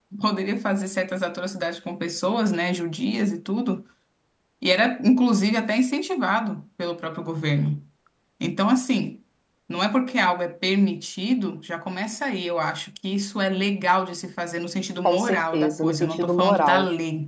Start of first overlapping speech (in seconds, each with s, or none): 15.1 s